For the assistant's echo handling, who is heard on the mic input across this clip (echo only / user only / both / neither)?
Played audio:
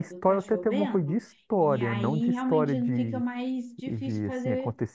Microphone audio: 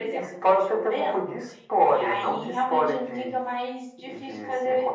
echo only